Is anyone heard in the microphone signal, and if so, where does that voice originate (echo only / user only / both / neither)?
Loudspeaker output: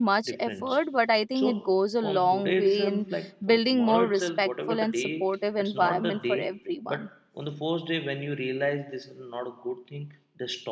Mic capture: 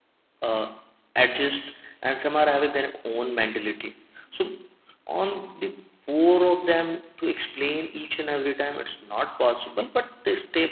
user only